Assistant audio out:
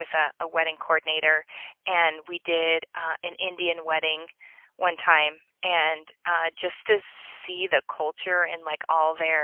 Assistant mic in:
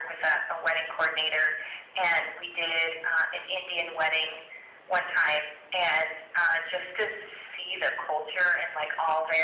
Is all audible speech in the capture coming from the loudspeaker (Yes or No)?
Yes